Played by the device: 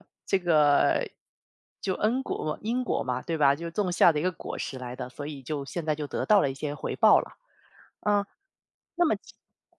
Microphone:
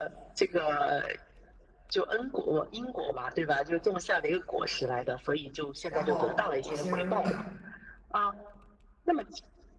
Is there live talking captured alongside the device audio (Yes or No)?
Yes